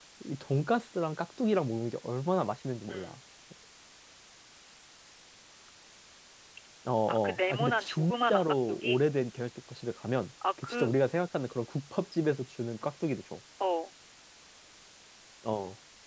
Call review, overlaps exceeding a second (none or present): present